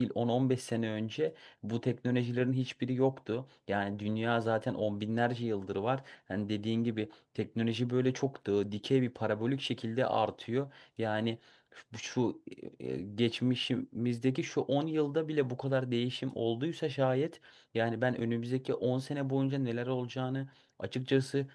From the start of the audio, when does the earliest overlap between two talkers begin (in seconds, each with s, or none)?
none